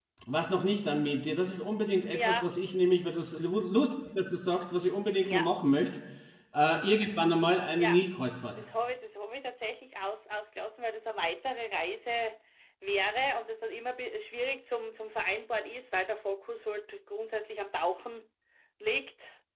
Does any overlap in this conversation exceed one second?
No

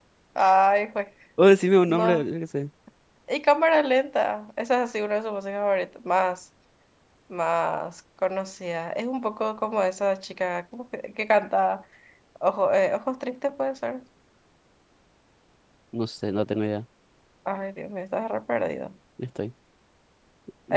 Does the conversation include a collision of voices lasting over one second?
No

